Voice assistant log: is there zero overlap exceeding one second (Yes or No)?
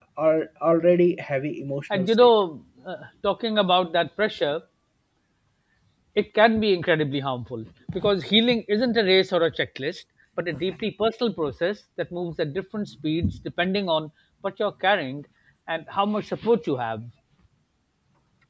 Yes